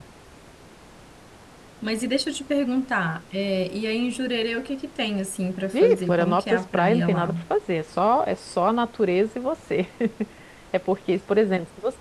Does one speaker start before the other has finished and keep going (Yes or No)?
Yes